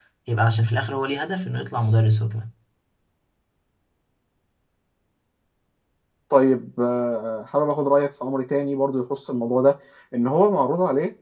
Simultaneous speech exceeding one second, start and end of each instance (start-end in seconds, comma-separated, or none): none